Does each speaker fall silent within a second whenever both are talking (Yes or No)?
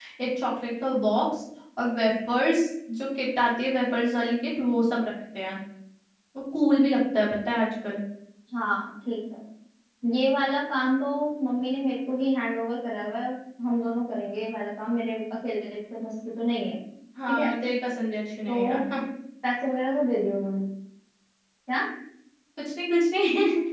Yes